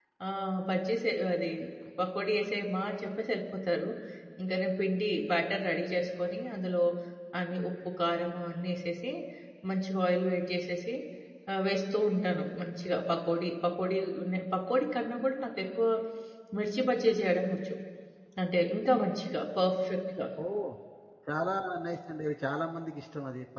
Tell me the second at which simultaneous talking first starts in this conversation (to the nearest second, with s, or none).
none